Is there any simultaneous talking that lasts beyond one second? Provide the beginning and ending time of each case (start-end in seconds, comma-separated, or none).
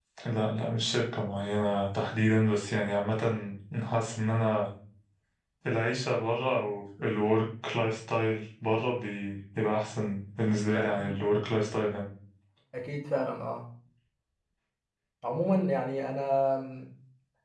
none